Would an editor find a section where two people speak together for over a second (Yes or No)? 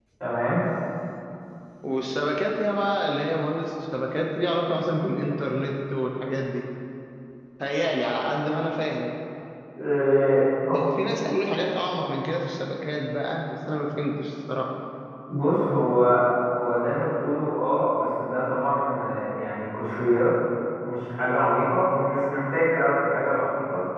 No